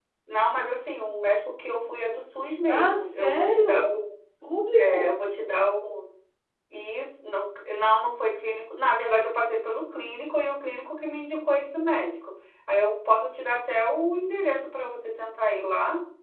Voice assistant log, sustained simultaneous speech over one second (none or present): present